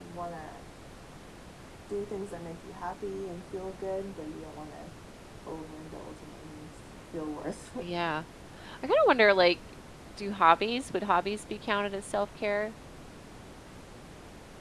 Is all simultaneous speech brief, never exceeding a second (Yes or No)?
Yes